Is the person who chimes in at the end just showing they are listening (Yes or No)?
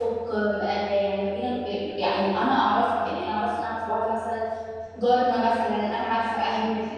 Yes